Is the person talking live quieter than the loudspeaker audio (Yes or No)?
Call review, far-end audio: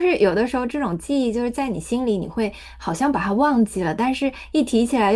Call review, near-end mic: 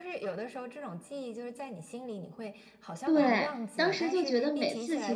No